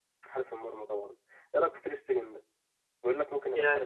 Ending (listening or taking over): taking over